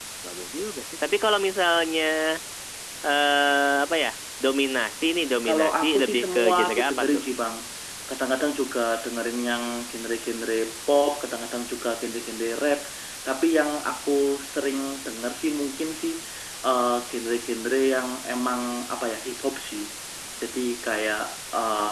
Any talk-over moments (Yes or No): Yes